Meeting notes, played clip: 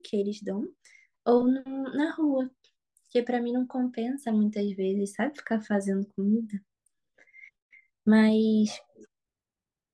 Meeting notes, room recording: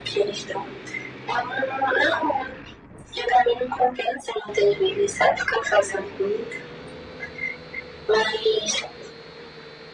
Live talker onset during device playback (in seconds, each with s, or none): none